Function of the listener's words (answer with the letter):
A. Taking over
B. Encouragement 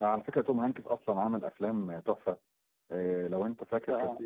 B